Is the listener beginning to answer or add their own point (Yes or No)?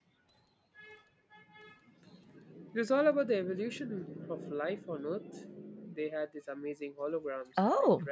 Yes